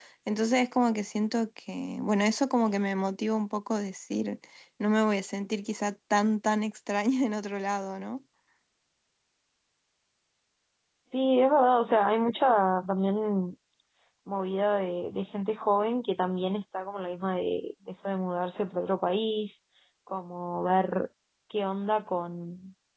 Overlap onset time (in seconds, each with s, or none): none